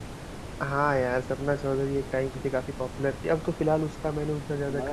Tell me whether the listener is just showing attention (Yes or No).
No